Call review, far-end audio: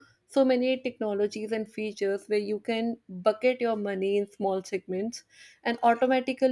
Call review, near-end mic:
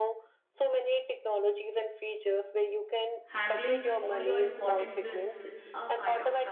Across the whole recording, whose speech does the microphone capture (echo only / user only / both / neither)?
both